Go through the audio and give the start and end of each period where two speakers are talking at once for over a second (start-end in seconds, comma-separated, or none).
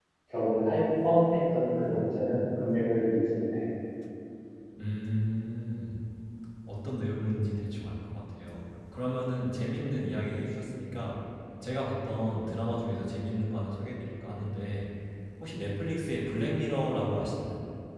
none